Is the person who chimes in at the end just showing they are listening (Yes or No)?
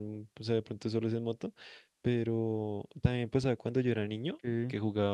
Yes